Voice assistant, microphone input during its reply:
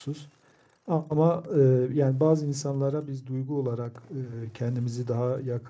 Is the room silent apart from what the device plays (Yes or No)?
No